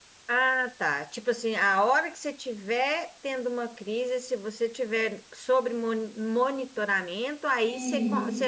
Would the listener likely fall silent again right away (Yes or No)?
Yes